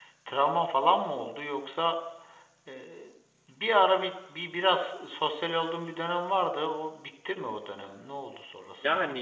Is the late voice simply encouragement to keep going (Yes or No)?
No